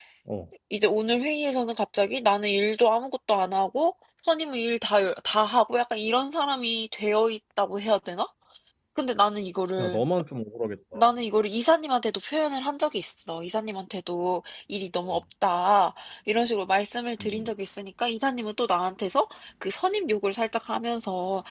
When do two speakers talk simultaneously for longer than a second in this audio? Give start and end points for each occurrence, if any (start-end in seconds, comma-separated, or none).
none